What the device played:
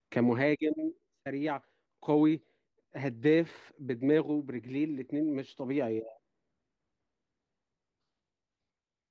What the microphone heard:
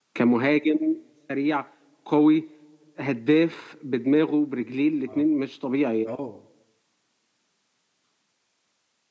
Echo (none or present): present